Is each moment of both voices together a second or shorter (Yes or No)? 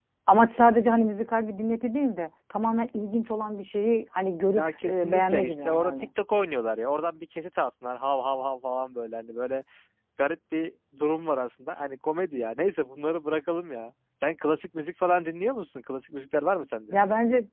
No